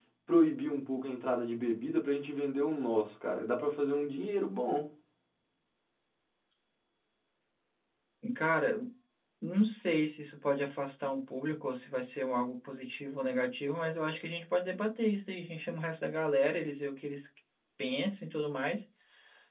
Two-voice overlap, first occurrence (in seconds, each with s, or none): none